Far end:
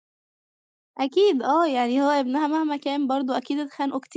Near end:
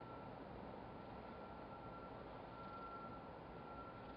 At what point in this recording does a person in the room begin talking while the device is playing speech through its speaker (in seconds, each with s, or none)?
none